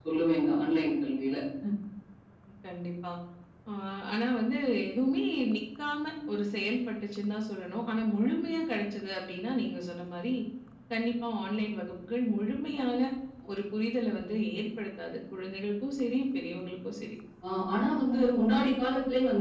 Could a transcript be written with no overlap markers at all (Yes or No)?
Yes